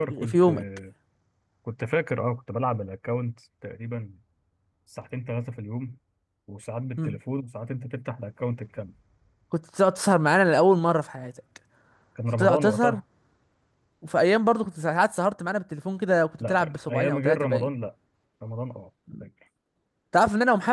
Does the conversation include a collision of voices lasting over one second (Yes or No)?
Yes